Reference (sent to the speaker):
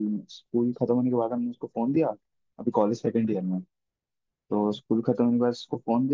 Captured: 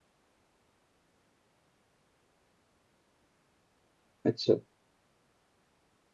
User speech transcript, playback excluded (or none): अच्छा